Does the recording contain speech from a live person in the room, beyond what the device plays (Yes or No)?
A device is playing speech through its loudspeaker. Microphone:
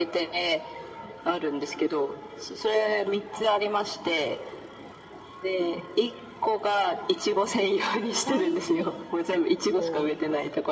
Yes